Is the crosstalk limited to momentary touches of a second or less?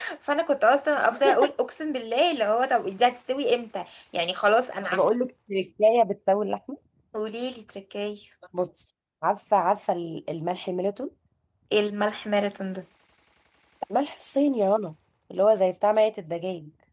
Yes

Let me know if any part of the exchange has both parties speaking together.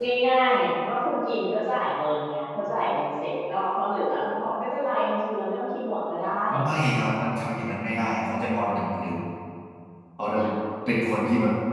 No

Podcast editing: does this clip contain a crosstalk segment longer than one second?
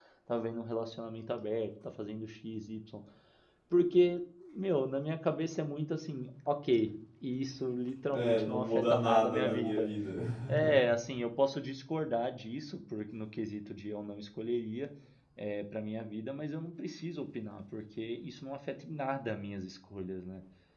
Yes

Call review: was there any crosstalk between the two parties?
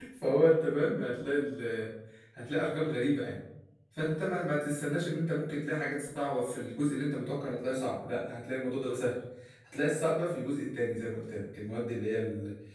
No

